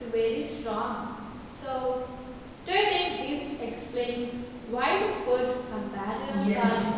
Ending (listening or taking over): taking over